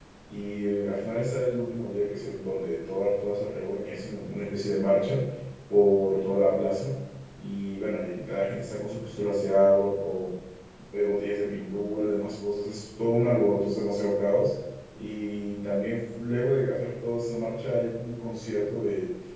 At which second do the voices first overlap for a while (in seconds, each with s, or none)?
none